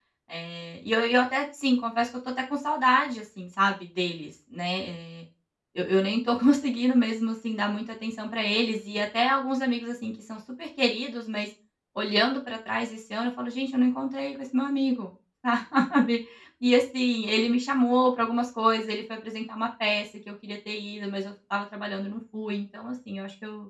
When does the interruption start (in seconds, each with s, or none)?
none